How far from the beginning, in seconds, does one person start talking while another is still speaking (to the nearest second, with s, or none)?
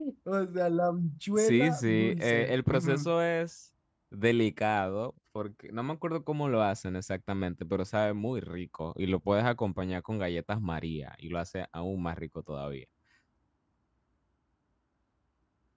1 s